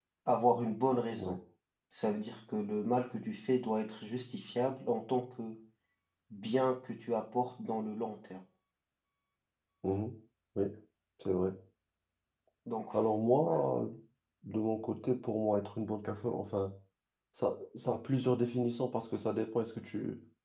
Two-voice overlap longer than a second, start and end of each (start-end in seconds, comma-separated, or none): none